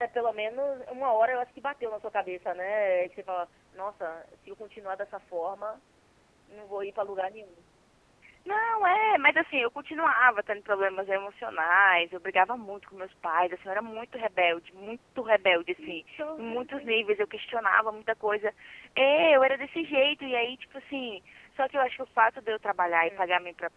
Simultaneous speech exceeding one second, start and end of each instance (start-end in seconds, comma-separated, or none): 15.9-17.1